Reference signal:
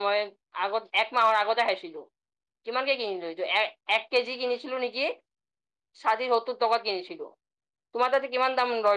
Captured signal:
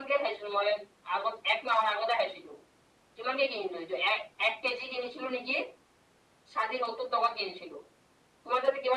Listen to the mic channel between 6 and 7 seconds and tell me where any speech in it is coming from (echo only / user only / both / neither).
echo only